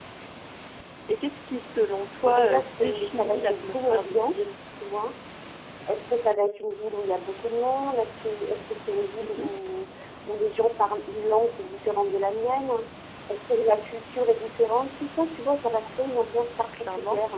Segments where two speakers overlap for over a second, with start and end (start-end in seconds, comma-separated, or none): 2.2-4.4